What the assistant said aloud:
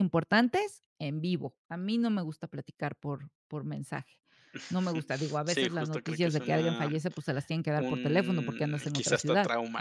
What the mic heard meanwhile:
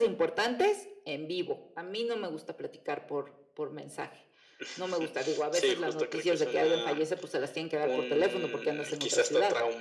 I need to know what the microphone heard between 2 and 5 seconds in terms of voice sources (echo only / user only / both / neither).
echo only